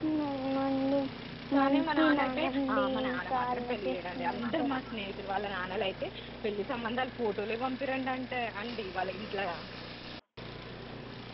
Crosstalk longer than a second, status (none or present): present